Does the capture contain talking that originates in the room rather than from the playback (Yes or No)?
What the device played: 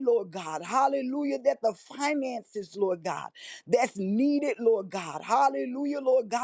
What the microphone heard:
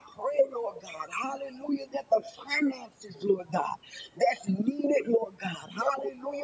No